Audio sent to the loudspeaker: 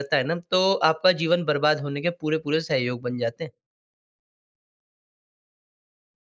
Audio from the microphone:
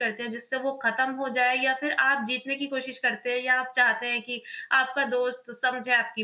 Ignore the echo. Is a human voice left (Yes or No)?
Yes